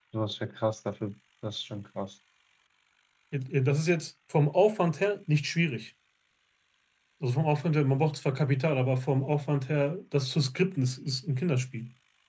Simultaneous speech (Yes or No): No